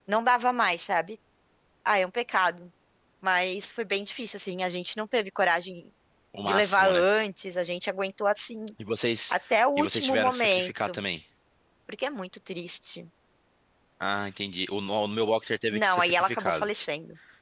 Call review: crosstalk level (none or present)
present